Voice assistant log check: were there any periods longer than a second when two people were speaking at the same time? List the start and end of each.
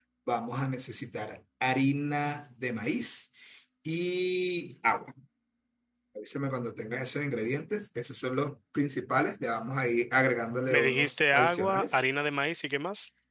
10.7-12.0

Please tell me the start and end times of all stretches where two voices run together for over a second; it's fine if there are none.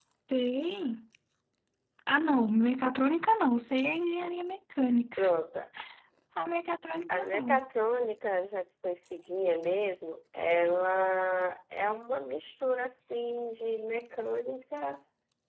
none

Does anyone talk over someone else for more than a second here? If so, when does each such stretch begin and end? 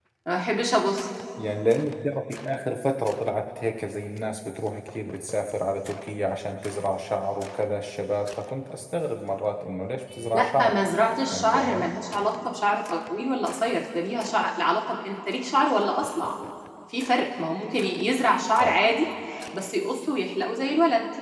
none

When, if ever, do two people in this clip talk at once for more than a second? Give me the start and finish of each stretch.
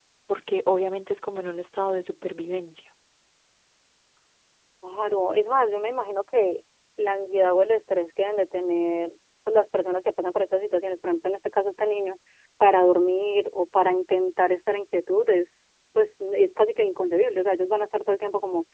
none

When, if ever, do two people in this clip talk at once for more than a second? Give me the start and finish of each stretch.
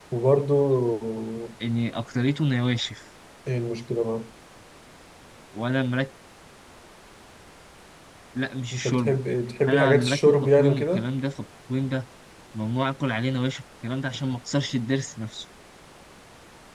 9.7-11.1

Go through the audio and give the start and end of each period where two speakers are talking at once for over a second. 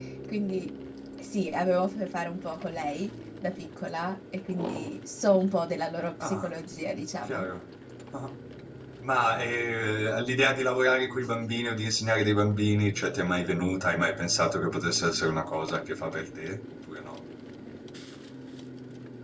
none

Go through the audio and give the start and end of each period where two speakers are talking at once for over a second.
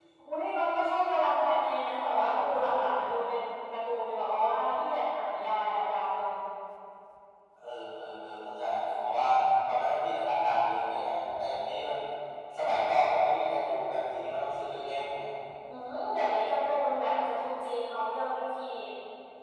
none

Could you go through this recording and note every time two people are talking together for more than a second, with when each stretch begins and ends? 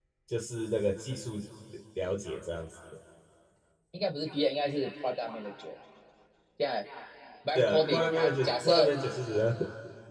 7.5-8.9

